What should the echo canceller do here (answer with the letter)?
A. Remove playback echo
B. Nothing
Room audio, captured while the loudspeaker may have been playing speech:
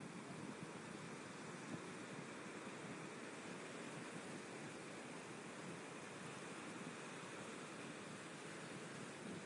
B